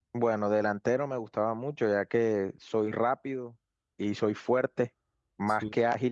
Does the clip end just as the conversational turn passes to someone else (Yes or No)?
No